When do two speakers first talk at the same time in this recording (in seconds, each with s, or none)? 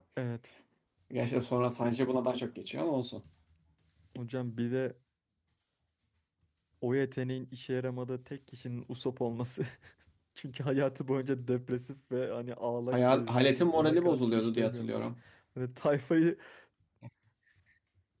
12.9 s